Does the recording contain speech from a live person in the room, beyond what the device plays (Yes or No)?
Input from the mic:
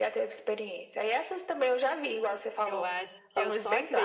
Yes